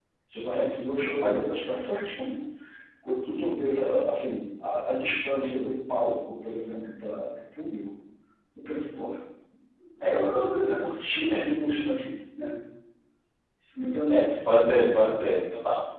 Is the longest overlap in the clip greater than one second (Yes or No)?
No